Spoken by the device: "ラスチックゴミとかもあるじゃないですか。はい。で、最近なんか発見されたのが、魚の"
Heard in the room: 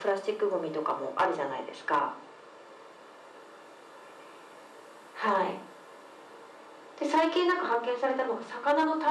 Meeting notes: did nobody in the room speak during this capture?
Yes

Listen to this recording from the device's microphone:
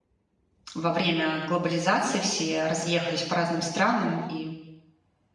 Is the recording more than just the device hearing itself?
Yes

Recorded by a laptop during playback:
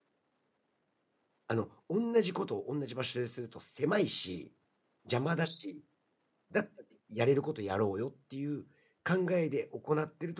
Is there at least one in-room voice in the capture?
Yes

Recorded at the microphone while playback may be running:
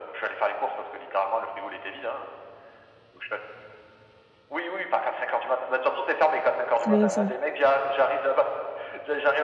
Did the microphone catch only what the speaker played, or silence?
No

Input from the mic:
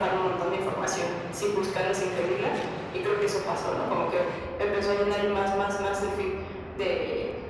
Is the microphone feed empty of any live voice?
Yes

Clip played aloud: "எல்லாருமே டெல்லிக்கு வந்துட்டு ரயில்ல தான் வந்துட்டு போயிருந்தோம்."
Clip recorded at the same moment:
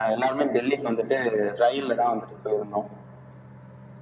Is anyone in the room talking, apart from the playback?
No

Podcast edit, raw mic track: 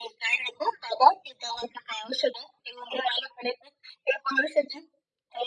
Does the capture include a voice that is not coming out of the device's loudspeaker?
No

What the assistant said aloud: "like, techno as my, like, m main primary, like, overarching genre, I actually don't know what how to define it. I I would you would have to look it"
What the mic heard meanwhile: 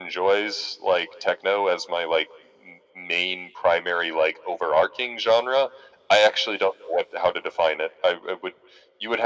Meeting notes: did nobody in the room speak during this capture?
Yes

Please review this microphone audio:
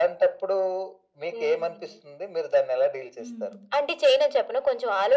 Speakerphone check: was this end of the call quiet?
No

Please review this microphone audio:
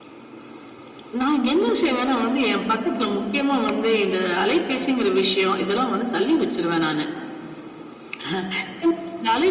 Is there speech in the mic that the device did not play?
No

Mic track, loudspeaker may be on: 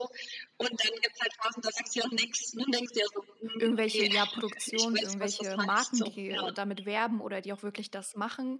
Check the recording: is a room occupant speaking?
Yes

